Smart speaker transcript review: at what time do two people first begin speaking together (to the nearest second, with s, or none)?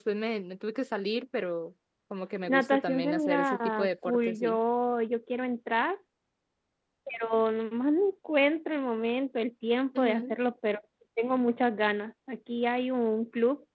2 s